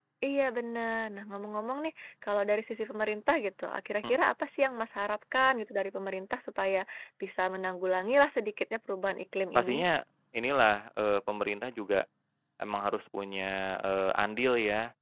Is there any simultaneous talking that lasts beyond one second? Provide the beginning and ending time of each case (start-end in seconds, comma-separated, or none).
none